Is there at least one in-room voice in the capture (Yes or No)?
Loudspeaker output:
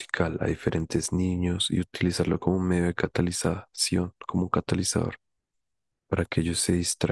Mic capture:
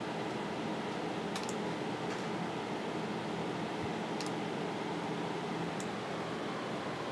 No